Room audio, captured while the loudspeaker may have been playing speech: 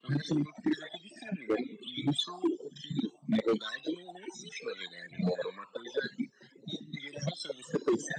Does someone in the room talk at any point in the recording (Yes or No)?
No